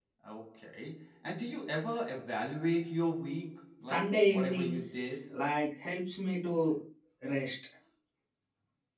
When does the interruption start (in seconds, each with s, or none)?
3.8 s